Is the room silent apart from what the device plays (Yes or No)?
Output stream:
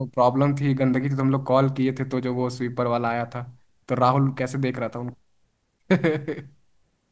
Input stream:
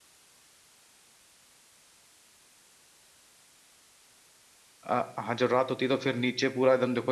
No